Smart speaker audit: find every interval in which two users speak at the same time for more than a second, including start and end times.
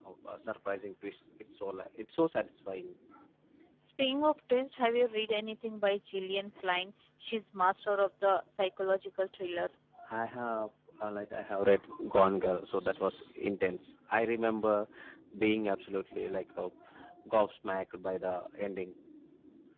none

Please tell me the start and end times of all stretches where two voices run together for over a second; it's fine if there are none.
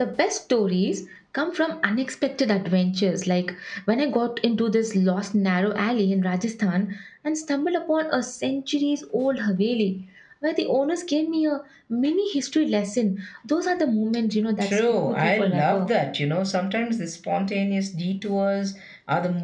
14.6-15.9

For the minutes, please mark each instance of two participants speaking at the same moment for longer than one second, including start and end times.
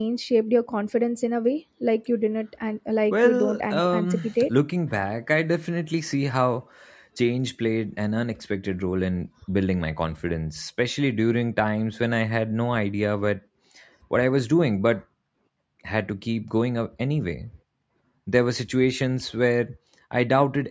3.1-4.5

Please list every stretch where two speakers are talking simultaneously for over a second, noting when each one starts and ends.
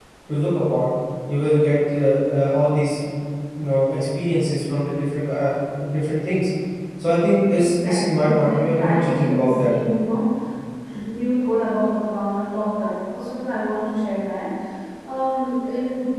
7.5-9.7

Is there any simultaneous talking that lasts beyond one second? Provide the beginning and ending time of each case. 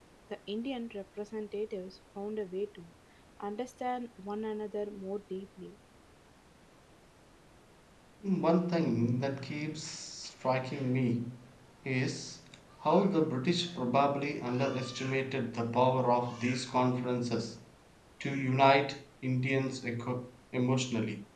none

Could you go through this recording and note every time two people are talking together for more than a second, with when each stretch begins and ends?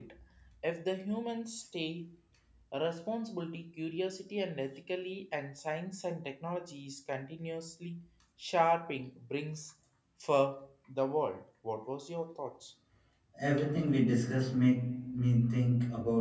none

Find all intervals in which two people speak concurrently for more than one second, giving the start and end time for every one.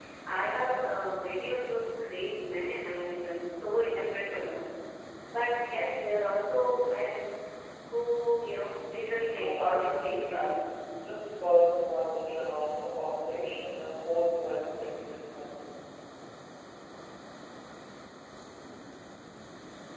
9.3-10.6

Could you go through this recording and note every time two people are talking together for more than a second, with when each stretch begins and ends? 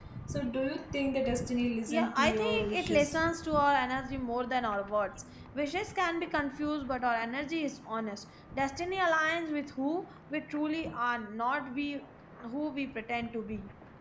1.9-3.2

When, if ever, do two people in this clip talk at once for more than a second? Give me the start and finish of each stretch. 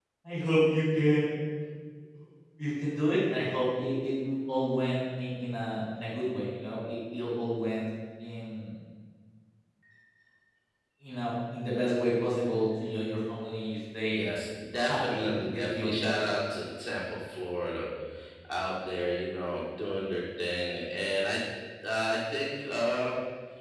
14.8-16.2

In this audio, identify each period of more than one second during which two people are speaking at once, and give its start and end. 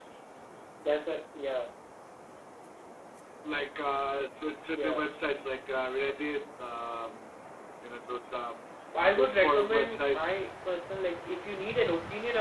9.2-10.4

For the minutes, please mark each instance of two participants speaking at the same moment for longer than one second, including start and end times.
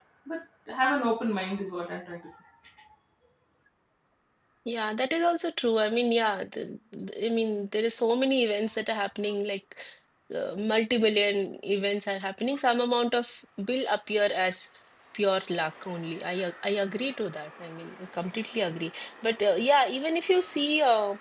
none

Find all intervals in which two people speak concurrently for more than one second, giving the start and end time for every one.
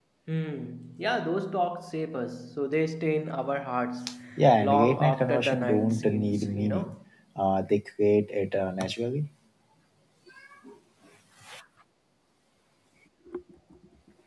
4.6-7.0

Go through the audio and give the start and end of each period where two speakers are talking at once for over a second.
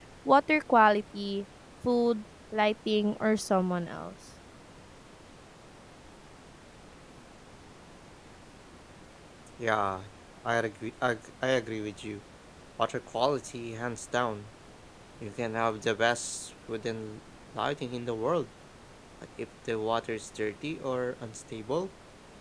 none

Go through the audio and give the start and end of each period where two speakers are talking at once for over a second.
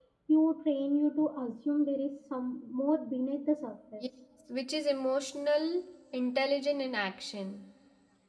none

